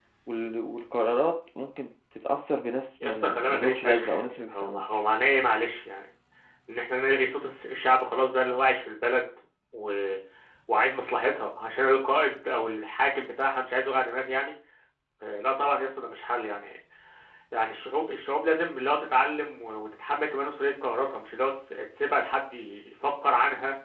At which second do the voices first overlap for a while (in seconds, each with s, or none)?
3.0 s